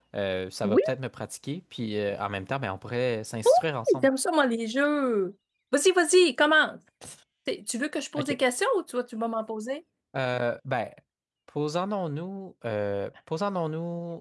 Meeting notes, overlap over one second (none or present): none